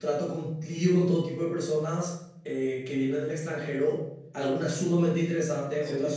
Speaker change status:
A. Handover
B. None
B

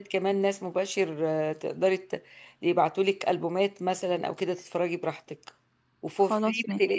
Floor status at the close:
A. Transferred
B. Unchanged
B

